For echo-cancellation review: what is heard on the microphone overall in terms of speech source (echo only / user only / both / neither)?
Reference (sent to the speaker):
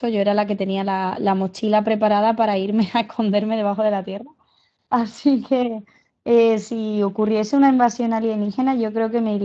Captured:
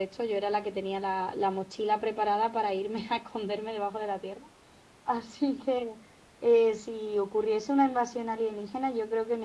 echo only